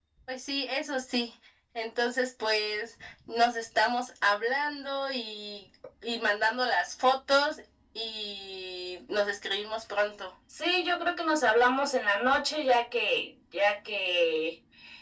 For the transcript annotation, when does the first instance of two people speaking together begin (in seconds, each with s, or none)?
none